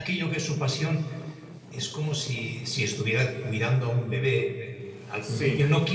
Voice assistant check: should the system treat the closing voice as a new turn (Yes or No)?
No